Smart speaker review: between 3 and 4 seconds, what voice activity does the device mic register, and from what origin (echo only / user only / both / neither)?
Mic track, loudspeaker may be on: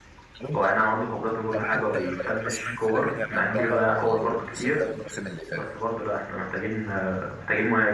both